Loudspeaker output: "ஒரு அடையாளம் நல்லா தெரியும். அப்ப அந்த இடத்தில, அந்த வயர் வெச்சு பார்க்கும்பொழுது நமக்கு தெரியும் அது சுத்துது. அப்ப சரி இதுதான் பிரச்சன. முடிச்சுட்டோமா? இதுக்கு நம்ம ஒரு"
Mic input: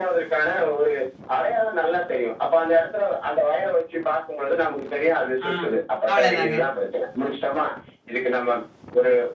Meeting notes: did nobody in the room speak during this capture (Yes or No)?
No